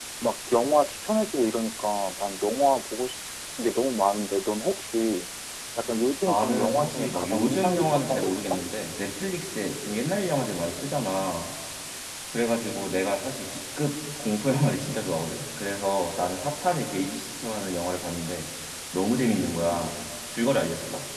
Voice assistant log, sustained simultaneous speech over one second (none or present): present